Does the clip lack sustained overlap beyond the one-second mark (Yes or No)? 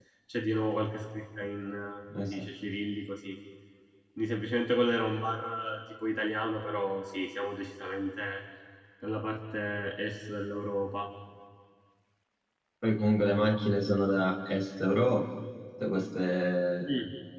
Yes